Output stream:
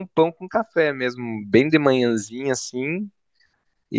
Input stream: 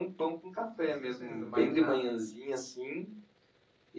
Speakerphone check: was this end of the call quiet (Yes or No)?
No